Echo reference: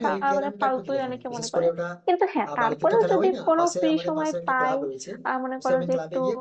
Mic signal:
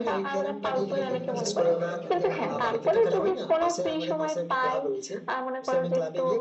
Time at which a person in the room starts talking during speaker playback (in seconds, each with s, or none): 0.7 s